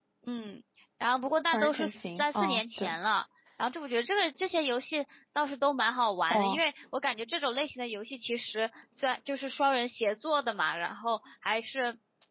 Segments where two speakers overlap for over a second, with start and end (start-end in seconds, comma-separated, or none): 1.5-3.0